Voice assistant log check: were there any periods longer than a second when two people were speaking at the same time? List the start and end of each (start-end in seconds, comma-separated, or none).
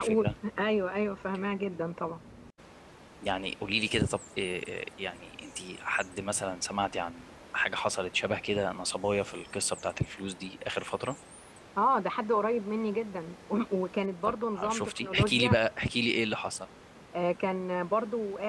14.2-15.6